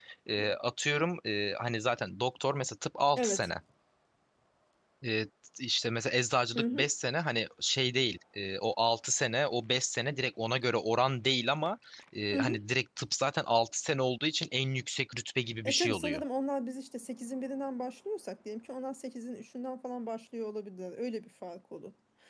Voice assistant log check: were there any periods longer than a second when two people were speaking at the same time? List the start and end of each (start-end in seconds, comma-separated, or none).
none